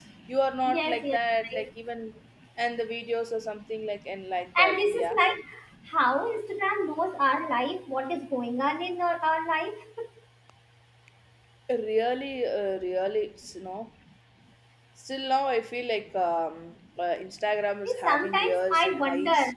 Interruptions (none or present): present